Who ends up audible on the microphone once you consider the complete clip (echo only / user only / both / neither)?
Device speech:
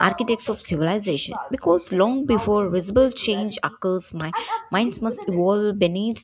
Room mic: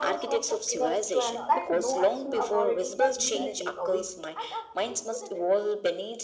both